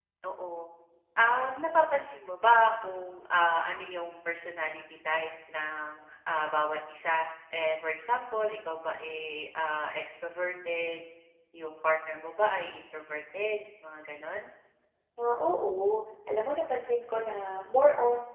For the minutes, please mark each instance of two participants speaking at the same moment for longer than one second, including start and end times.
none

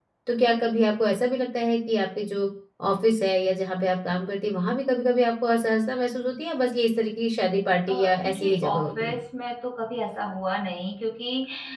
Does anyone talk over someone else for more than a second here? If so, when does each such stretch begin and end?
7.9-9.2

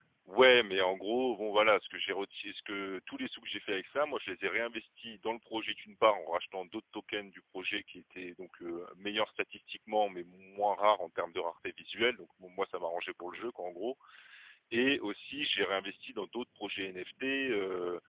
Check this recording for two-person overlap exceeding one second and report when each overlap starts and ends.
none

